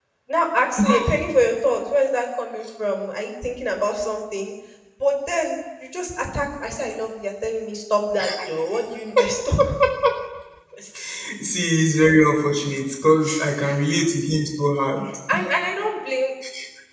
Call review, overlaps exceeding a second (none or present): none